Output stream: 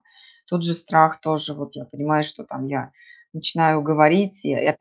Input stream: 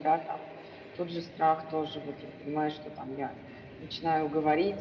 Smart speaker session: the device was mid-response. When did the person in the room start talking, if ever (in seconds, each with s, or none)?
none